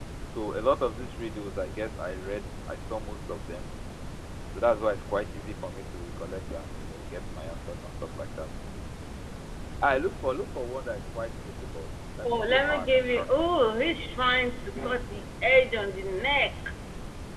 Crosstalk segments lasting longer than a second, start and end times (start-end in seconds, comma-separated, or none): 12.2-13.8